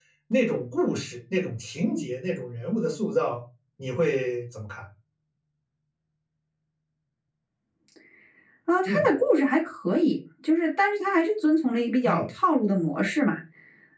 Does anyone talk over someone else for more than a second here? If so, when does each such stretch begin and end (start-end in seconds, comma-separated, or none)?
none